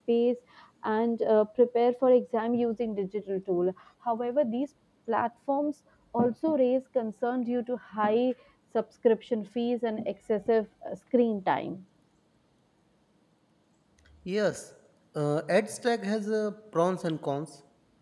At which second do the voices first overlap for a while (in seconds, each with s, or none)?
none